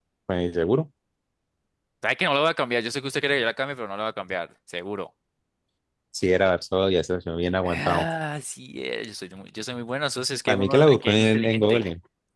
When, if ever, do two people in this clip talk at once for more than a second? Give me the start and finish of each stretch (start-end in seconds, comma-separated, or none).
10.5-11.8